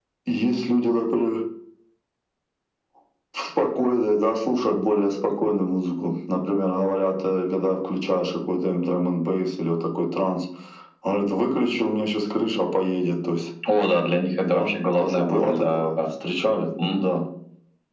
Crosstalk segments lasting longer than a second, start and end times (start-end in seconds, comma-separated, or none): 14.4-15.9